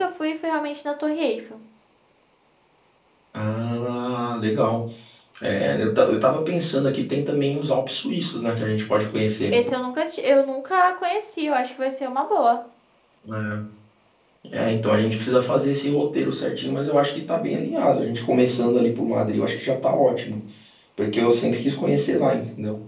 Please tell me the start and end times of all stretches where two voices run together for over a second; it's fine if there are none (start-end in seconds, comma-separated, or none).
none